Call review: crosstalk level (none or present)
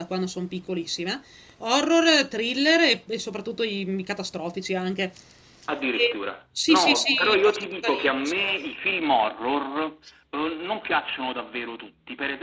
present